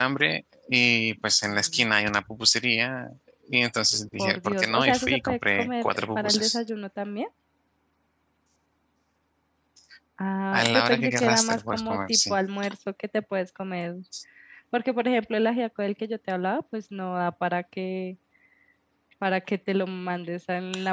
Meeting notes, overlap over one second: present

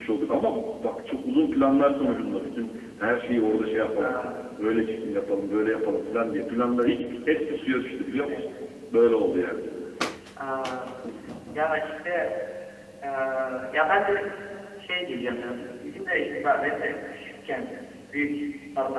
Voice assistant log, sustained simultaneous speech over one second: none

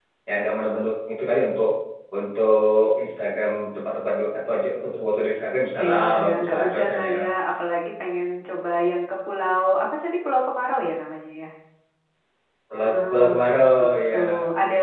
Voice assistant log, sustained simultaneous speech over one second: present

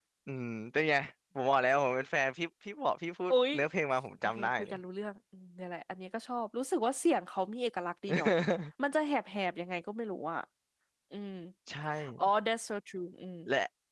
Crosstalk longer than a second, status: none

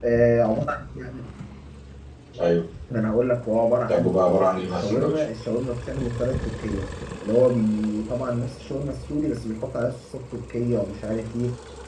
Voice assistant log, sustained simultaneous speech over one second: present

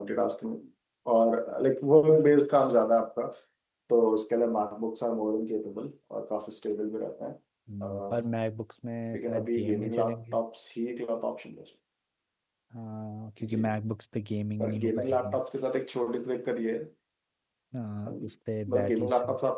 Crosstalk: present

